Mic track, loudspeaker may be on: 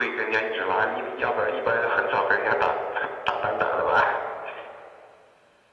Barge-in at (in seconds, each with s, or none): none